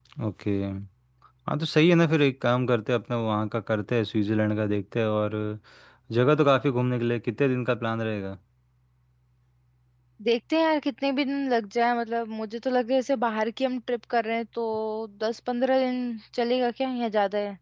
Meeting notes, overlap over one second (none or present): none